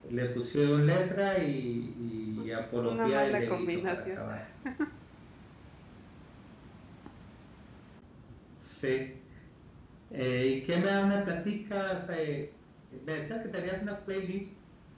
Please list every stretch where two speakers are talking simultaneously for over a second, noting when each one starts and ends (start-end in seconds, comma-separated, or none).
2.4-4.2